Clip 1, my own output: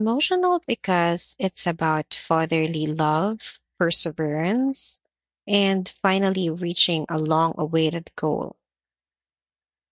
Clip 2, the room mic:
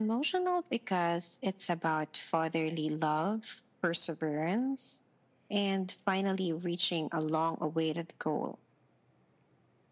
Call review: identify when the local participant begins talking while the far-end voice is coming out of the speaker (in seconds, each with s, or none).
none